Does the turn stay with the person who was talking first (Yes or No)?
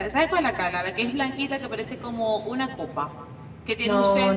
No